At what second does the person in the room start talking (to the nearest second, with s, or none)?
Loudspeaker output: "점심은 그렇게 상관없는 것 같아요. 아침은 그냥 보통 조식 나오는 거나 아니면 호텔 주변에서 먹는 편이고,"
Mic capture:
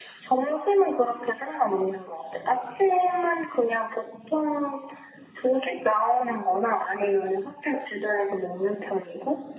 none